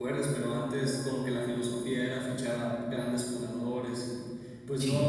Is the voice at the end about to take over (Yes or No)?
No